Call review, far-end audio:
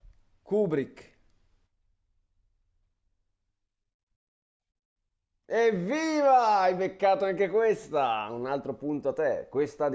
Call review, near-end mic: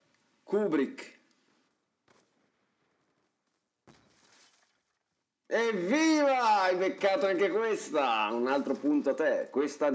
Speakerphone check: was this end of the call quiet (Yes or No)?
Yes